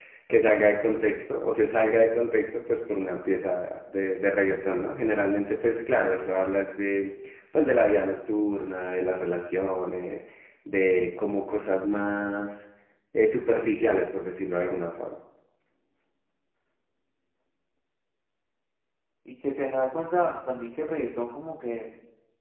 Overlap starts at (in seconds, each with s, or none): none